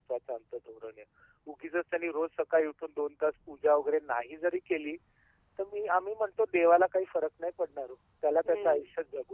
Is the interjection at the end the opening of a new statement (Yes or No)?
No